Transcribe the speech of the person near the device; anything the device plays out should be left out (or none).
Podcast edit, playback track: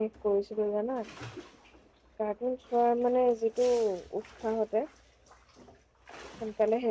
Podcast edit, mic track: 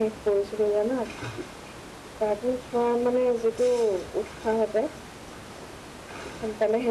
none